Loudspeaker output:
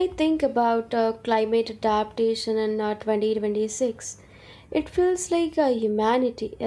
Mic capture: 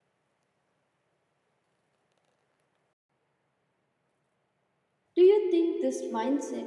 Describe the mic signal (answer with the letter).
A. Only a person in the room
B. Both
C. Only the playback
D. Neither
A